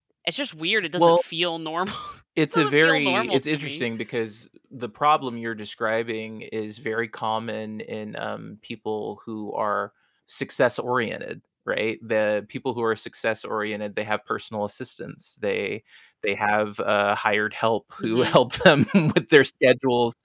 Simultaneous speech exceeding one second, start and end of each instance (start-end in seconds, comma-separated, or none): 2.5-3.8